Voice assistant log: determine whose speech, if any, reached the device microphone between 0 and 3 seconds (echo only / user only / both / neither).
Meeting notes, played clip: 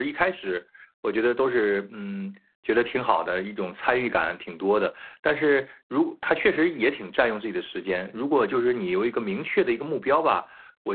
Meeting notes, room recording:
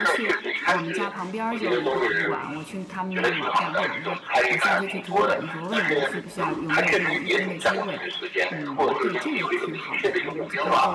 both